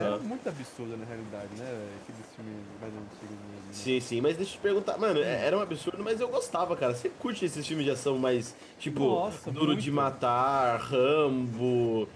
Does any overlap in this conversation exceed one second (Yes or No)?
Yes